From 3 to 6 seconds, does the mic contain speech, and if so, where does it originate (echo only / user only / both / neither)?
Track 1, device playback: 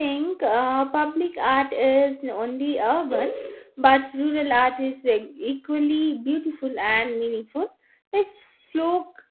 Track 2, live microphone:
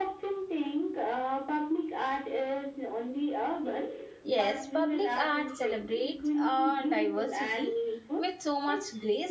both